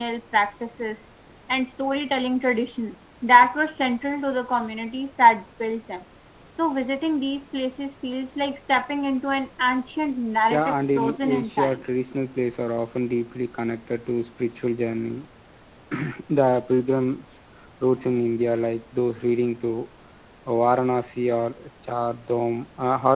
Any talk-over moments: Yes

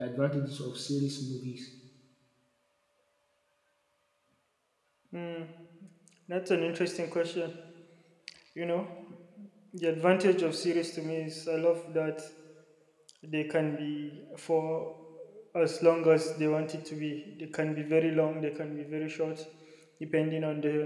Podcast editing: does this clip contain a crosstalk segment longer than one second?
No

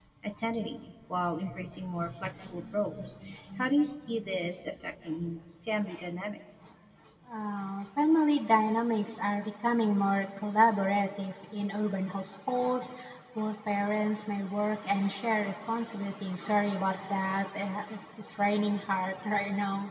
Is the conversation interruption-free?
Yes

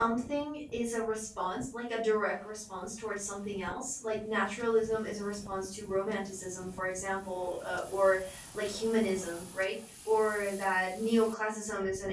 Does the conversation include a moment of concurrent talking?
No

